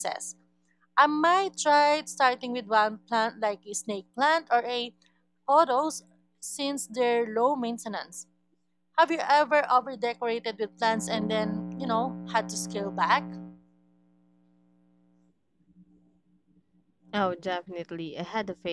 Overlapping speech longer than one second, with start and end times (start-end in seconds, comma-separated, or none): none